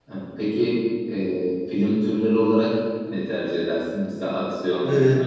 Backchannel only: Yes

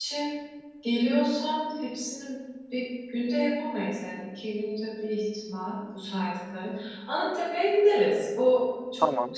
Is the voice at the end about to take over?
No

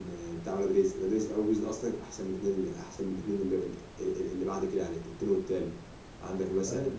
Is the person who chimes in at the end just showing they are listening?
Yes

